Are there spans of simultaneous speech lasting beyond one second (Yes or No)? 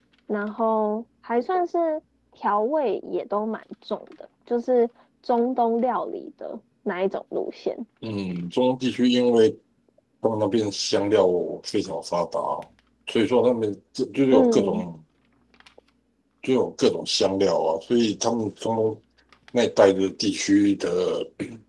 No